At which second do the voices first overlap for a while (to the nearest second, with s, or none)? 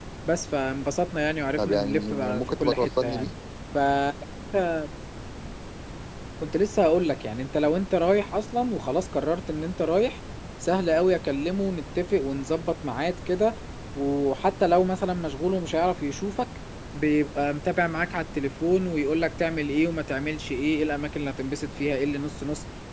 2 s